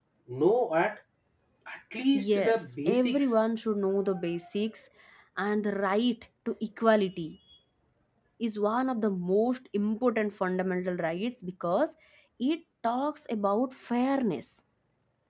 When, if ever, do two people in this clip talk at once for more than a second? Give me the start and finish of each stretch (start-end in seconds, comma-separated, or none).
2.1-3.4